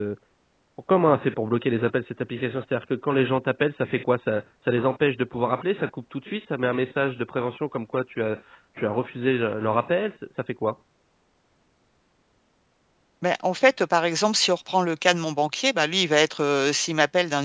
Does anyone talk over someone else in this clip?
No

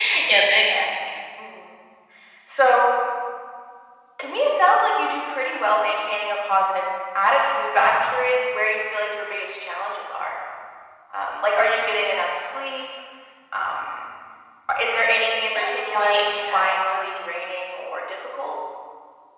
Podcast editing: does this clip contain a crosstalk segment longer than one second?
Yes, from 15.5 s

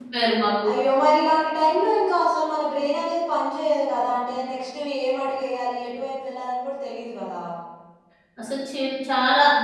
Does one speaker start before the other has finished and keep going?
No

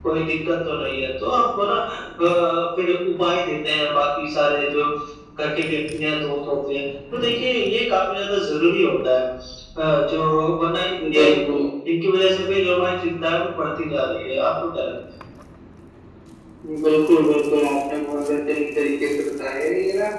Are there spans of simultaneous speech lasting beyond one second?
No

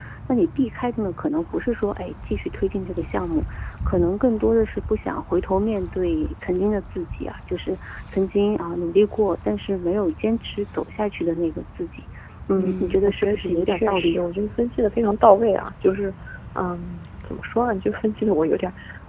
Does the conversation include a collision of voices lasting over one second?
Yes, from 12.6 s

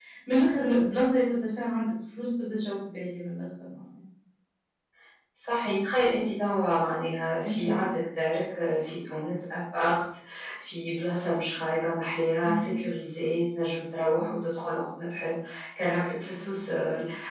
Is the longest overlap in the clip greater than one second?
No

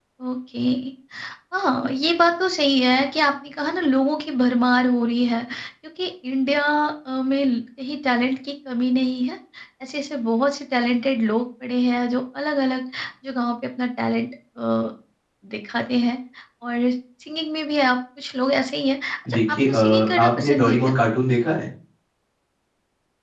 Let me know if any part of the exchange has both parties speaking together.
Yes, from 19.2 s

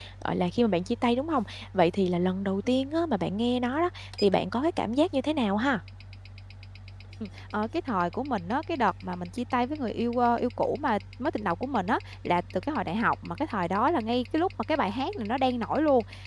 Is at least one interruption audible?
No

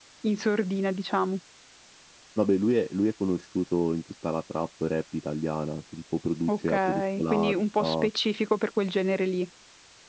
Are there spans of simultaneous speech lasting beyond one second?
Yes, from 6.5 s

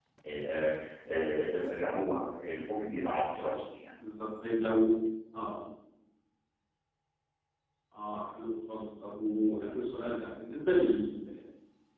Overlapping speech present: No

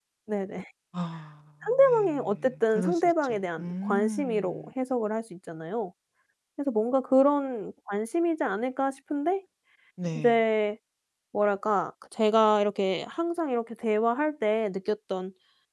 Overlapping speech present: Yes, from 1.6 s

